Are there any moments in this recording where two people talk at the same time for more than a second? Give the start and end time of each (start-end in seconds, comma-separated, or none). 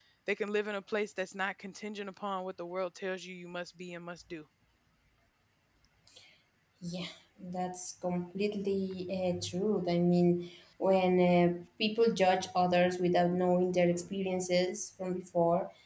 none